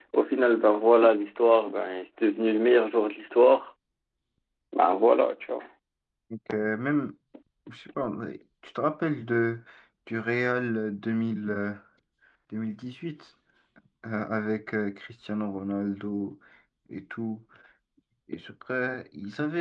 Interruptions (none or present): none